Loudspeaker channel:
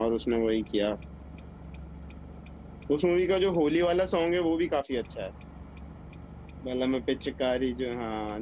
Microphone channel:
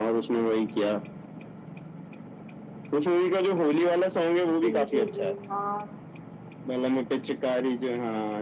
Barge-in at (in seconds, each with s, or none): 4.5 s